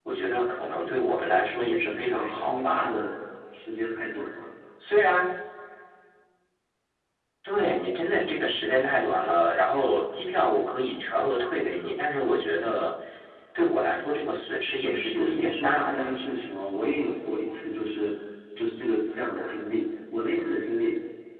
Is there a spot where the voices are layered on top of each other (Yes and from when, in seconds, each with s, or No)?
Yes, from 1.6 s